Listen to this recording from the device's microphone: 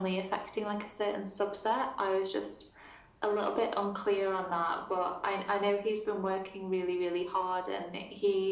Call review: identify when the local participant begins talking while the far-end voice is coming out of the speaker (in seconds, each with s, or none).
none